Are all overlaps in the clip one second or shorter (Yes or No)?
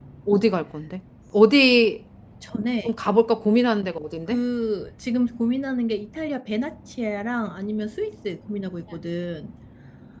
Yes